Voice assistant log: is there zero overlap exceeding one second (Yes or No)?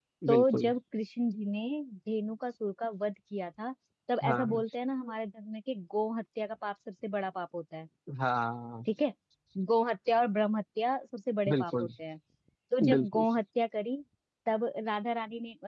Yes